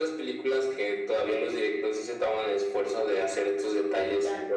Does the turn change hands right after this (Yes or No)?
No